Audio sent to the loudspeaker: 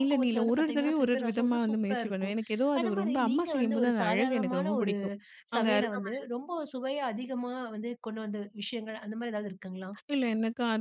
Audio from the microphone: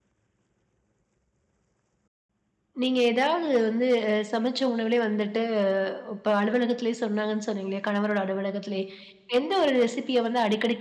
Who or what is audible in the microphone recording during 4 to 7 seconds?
user only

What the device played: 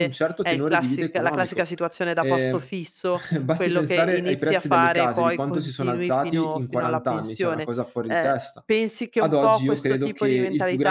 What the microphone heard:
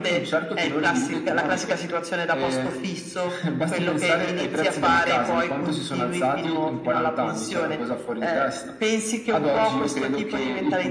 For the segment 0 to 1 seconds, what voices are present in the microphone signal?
echo only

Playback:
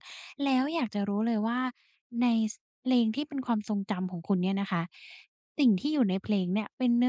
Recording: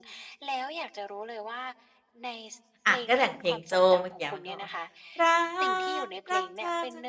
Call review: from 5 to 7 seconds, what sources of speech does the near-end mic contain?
both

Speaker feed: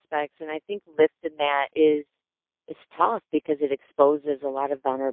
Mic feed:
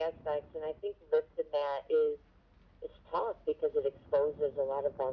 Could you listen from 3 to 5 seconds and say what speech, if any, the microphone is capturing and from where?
echo only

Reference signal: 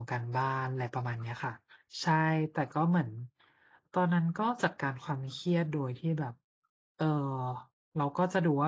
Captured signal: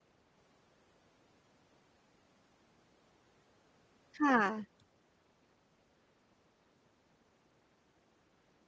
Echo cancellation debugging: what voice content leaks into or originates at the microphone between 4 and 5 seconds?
user only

